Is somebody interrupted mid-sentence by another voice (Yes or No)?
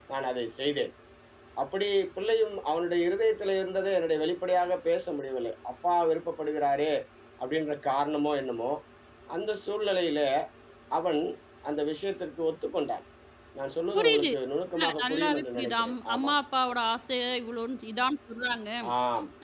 Yes